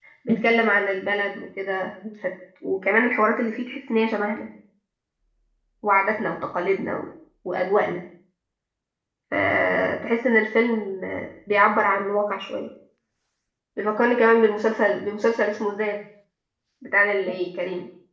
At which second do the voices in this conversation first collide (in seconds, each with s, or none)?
none